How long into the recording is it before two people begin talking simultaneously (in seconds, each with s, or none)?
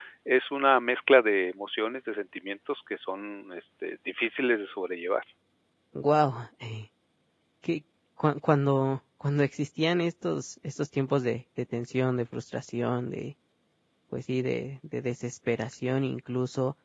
none